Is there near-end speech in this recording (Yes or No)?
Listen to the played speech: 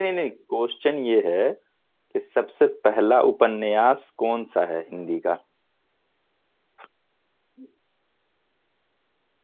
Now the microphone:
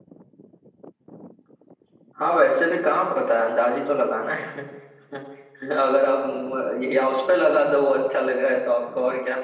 Yes